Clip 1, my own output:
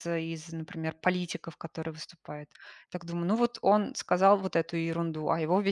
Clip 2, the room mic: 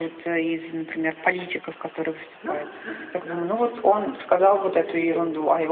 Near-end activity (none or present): present